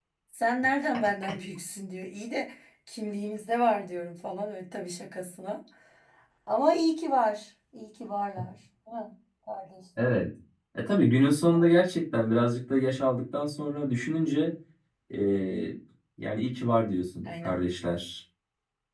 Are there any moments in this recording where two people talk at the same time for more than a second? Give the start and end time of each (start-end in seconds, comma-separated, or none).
none